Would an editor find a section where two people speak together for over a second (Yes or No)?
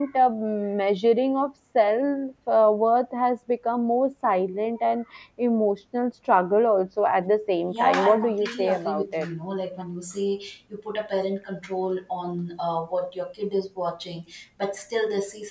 Yes